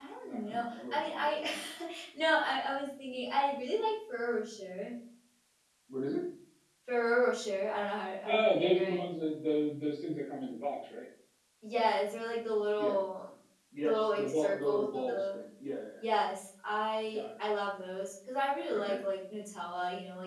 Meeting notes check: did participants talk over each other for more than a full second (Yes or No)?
Yes